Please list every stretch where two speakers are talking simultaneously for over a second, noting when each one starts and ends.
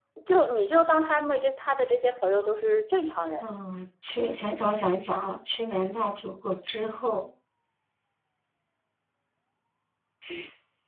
none

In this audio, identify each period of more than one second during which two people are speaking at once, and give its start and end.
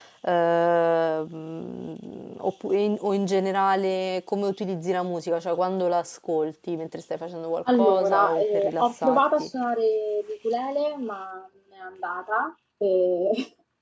7.7-9.5

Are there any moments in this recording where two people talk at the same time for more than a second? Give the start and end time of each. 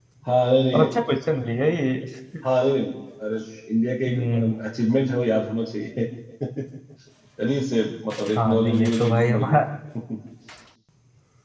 8.4-9.6

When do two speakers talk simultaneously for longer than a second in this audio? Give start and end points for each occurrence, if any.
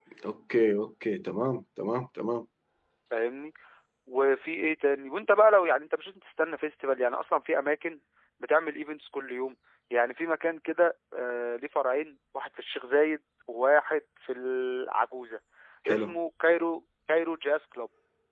none

